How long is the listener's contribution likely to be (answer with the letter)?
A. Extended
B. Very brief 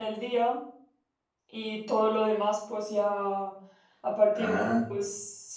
B